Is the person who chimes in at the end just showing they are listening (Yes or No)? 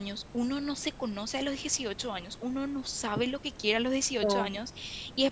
Yes